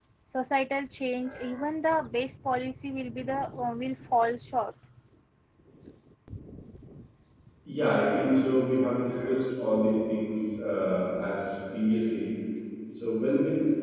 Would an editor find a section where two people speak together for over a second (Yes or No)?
No